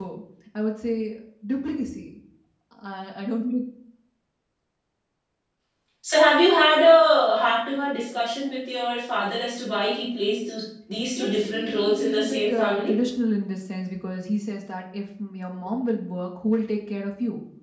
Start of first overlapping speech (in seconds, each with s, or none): 11.2 s